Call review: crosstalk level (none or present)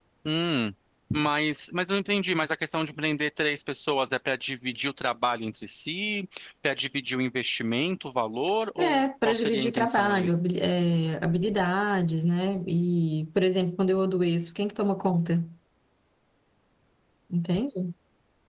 present